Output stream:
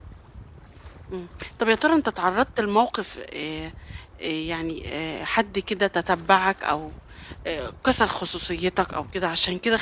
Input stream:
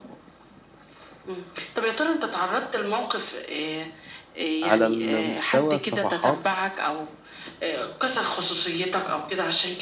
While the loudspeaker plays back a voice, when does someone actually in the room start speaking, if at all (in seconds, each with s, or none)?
4.6 s